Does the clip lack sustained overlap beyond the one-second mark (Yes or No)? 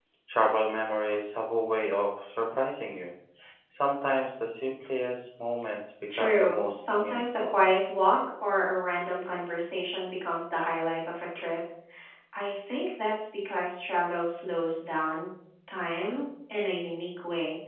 No